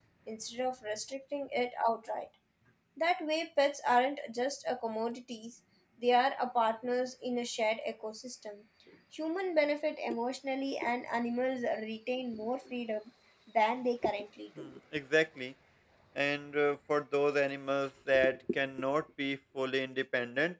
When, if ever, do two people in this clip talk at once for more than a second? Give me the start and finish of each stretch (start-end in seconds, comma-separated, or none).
none